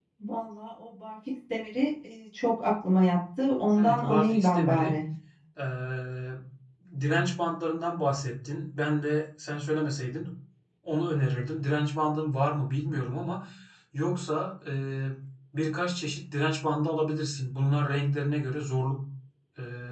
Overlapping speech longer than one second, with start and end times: 3.8-5.0

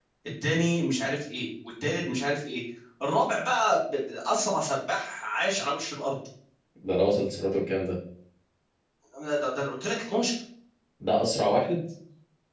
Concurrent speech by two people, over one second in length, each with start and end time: none

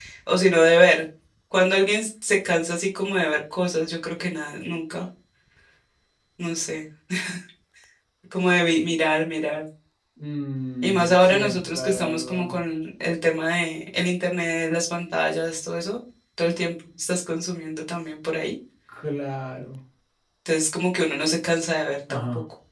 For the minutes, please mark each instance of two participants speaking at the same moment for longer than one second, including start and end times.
10.8-12.5

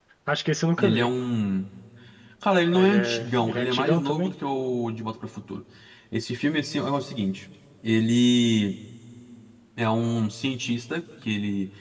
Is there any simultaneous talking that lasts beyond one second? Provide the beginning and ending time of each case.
2.7-4.3

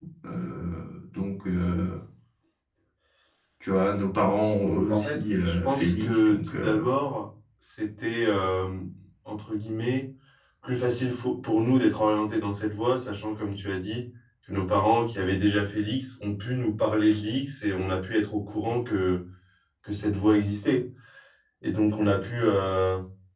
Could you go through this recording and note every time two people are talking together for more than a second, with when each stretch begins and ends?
4.9-6.9

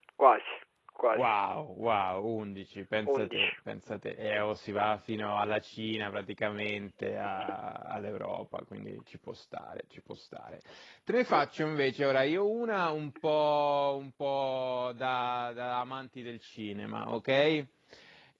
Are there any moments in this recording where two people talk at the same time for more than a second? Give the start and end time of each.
none

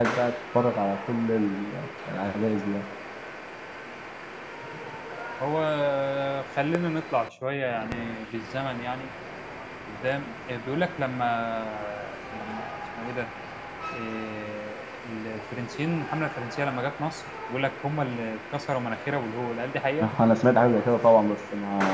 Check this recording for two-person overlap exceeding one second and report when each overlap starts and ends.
none

